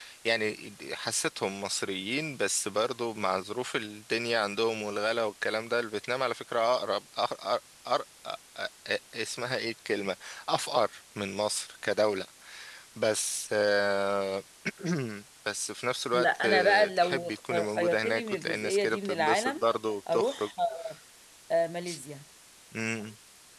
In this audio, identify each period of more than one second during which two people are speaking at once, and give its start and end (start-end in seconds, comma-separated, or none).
16.1-19.6